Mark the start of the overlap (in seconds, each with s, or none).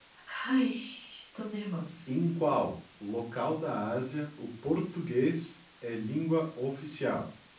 none